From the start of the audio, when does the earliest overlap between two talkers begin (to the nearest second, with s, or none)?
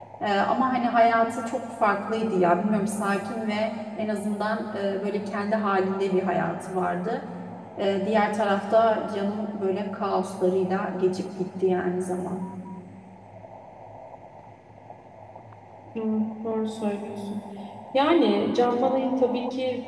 none